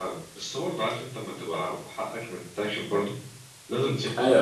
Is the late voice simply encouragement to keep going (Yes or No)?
No